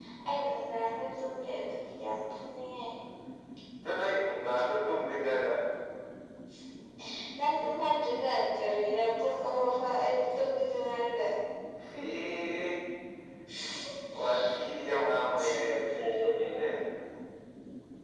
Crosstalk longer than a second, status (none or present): present